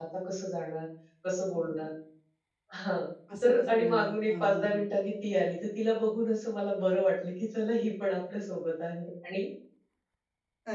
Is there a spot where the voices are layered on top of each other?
Yes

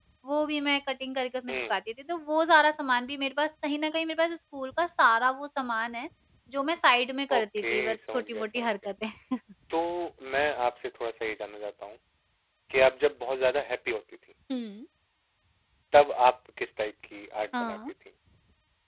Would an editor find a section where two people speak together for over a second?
Yes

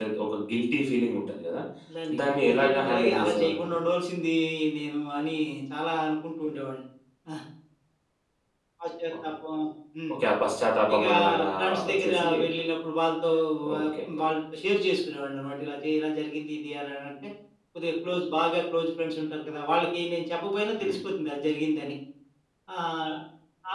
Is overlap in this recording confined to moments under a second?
No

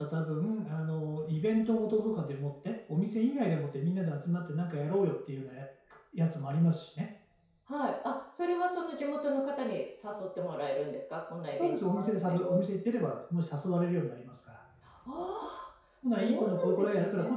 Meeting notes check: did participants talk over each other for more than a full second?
Yes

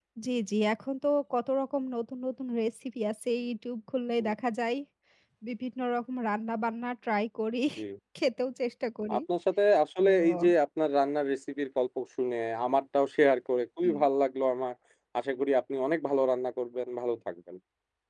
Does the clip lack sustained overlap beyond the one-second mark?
Yes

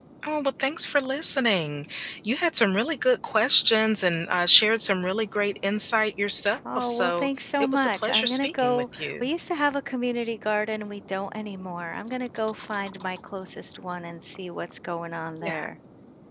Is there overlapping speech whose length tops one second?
Yes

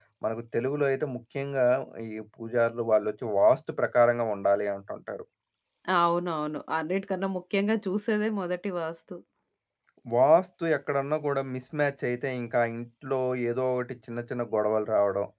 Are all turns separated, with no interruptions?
Yes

